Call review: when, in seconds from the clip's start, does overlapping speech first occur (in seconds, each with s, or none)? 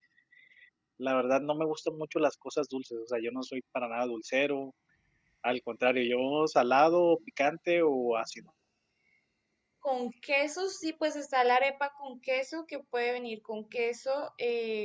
none